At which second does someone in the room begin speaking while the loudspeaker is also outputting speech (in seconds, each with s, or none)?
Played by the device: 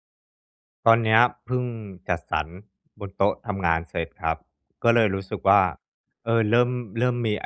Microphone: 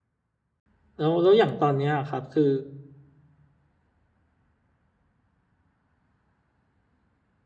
1.0 s